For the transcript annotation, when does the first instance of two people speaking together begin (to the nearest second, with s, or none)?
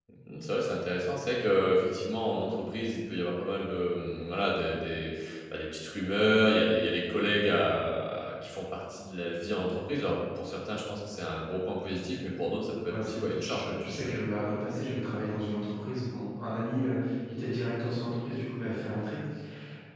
13 s